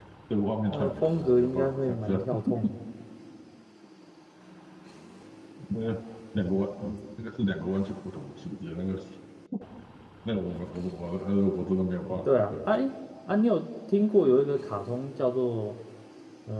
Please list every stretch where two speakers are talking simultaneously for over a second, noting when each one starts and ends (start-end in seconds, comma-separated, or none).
0.7-2.2